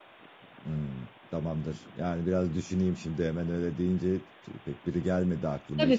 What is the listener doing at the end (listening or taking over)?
taking over